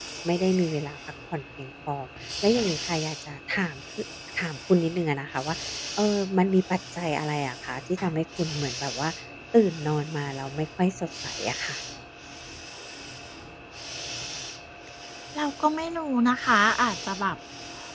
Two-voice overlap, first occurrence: none

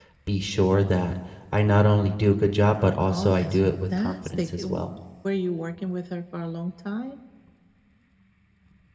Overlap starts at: 3.1 s

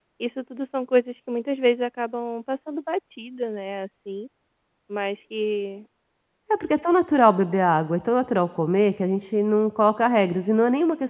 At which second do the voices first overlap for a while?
none

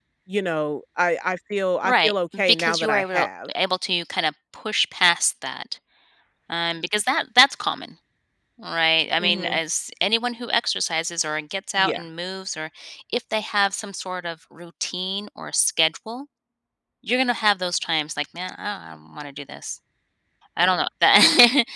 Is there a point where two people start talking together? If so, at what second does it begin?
1.8 s

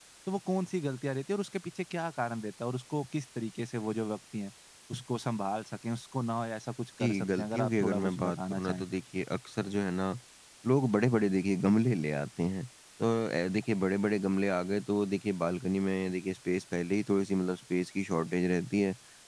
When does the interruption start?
7.0 s

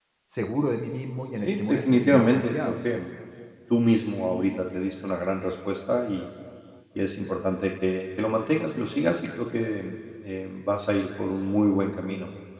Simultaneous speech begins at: 1.4 s

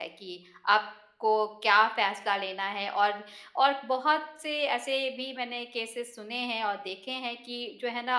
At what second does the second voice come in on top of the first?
none

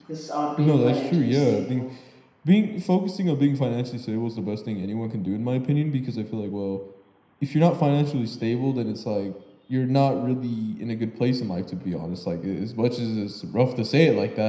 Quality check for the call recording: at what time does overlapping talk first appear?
0.6 s

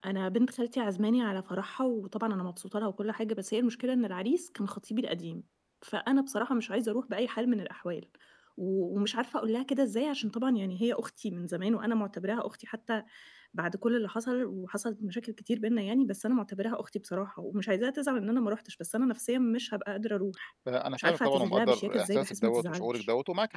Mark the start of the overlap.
21.0 s

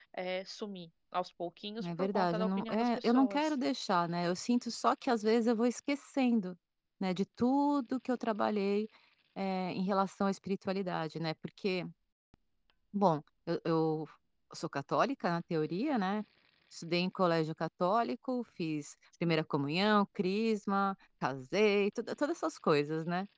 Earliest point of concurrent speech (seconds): 1.8 s

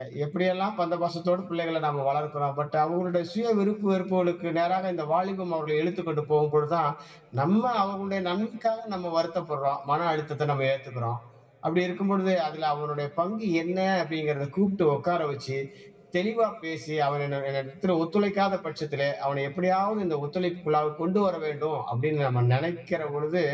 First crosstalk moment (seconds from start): none

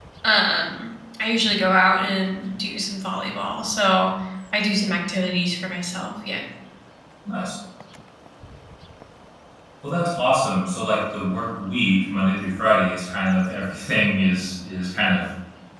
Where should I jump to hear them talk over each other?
none

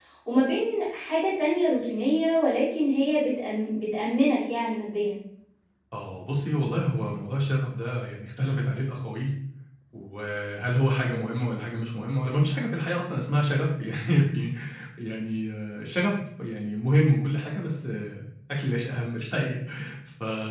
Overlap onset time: none

